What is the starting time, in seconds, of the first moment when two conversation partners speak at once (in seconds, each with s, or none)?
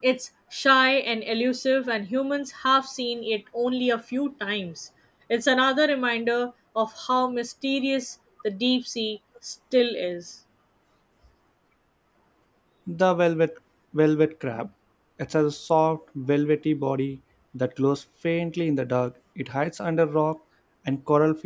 none